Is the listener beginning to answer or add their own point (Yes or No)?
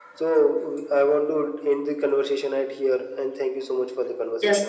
Yes